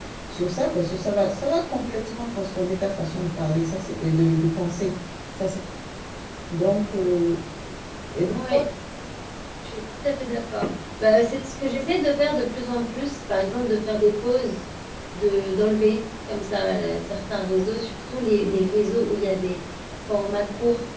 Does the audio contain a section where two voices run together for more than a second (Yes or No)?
No